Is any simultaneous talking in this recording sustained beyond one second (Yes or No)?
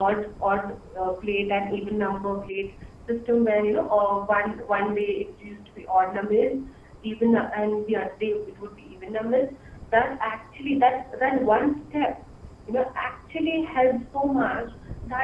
No